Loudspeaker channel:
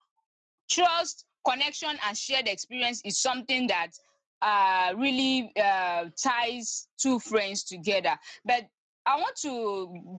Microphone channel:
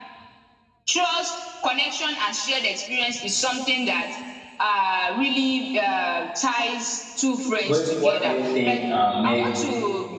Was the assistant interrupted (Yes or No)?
Yes